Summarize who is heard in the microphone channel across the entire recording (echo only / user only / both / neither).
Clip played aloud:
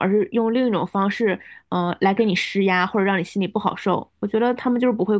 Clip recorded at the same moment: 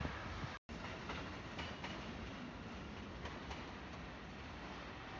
neither